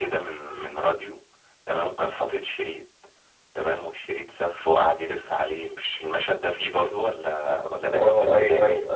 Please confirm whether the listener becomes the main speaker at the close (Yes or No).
Yes